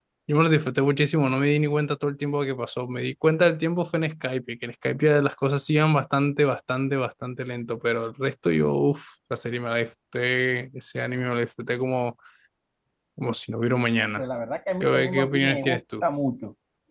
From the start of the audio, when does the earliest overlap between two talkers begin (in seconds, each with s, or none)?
14.8 s